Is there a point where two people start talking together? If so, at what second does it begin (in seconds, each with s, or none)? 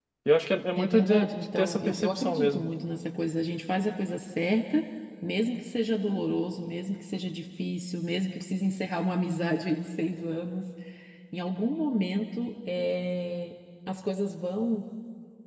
0.8 s